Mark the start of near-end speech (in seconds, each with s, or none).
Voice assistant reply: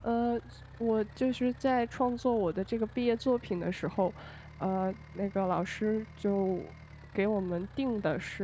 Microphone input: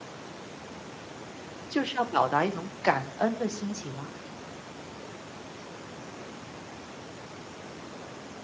1.7 s